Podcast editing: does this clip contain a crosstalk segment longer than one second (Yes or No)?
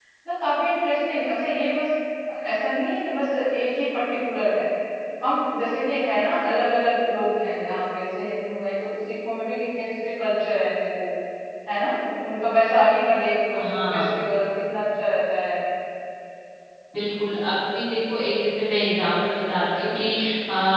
No